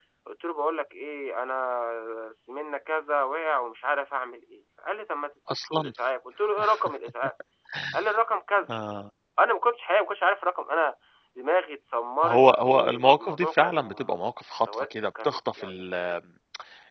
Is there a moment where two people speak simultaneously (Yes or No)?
Yes